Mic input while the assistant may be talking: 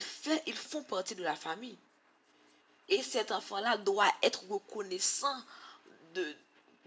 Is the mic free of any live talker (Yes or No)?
Yes